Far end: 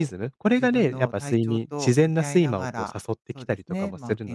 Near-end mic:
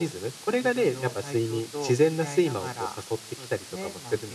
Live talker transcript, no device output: none

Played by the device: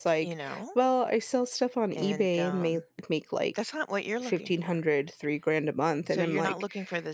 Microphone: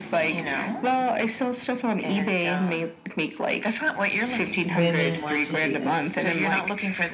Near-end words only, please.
Women want to do that,

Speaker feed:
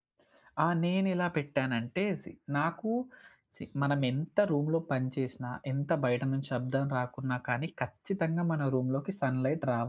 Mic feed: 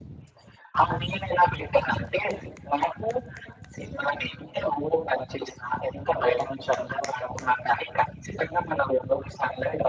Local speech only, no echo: none

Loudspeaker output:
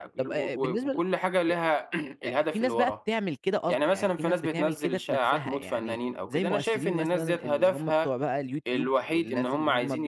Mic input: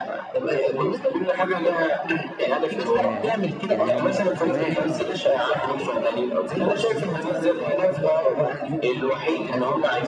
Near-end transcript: ياه! يعني هم كمان آه،

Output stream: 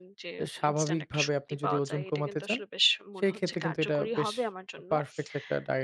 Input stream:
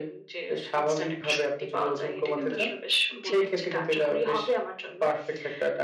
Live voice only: হুম, জি,

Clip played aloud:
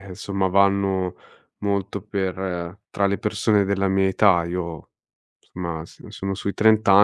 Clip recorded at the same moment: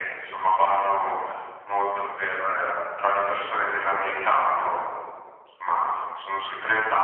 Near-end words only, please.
none

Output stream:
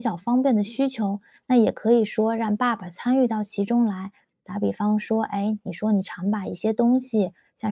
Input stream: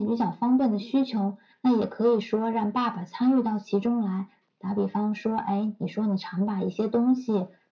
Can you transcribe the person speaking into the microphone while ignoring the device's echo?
none

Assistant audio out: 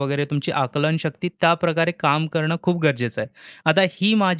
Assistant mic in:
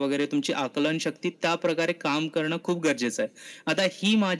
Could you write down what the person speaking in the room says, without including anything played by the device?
none

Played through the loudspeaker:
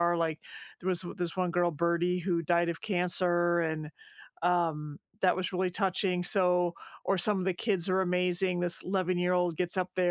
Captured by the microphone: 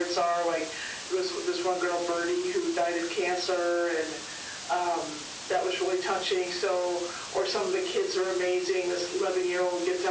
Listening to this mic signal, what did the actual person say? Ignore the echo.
none

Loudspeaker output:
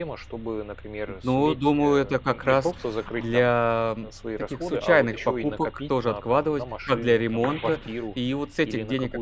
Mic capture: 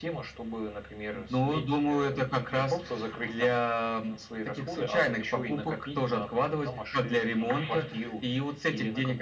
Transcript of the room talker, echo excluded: none

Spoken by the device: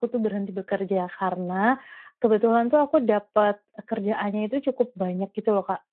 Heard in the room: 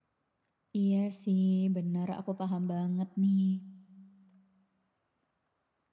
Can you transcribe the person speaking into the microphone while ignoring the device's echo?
Iya sih, bener, aku paham banget nih.

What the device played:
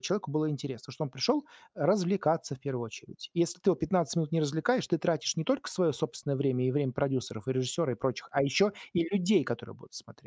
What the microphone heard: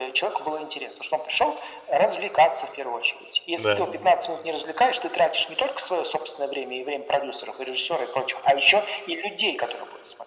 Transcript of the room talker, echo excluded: Да.

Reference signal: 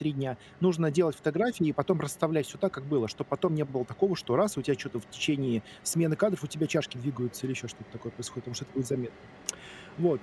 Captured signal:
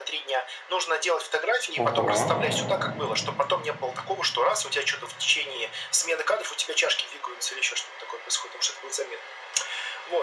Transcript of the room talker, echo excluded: Ого,

